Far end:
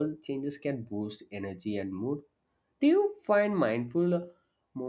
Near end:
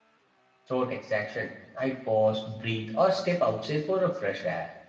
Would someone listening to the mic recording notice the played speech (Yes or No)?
No